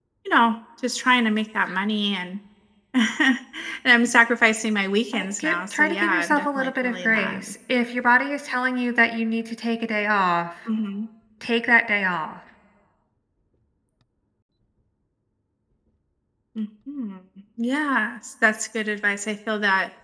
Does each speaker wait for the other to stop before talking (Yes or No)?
No